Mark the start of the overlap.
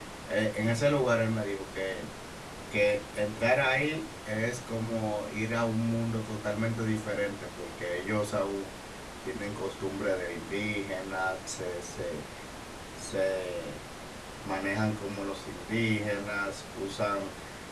none

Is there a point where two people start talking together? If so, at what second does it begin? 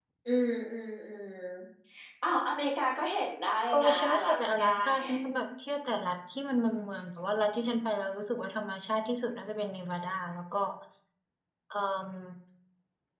3.7 s

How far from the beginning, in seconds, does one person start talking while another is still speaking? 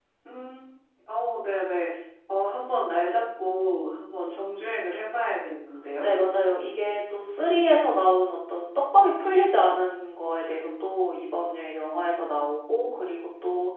none

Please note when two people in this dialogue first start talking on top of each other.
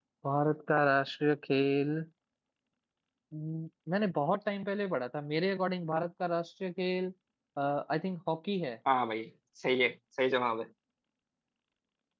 none

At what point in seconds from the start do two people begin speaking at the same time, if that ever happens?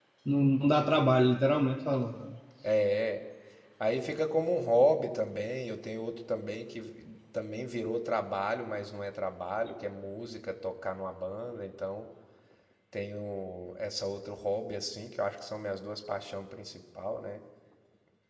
none

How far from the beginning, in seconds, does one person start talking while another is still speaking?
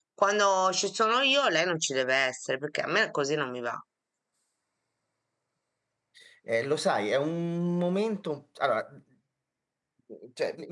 none

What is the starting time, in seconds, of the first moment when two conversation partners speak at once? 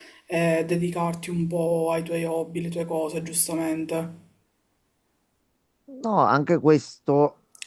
none

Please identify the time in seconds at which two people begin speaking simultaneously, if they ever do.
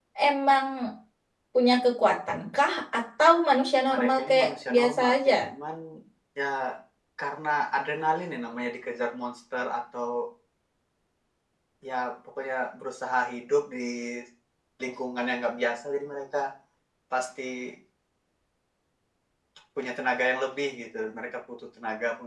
3.9 s

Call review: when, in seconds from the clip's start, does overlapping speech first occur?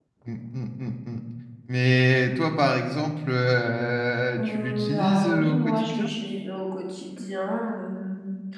4.4 s

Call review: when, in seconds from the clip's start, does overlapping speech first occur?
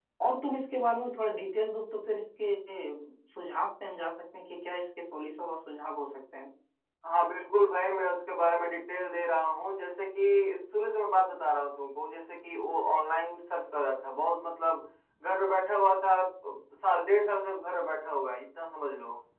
none

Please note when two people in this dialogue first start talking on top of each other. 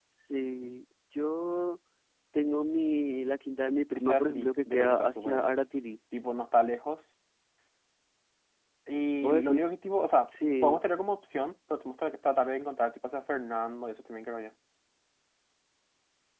4.0 s

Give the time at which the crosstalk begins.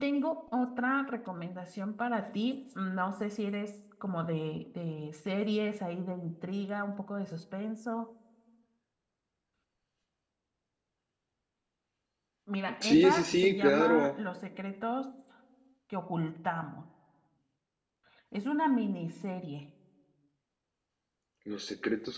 12.8 s

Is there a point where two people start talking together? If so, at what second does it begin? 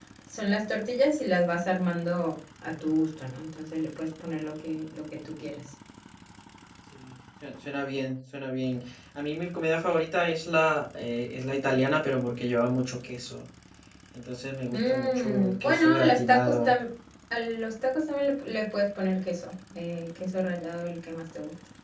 14.7 s

